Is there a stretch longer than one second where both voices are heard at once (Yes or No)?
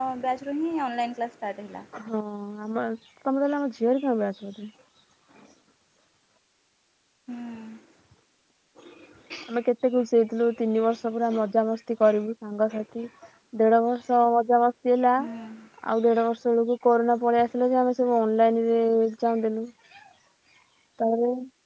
No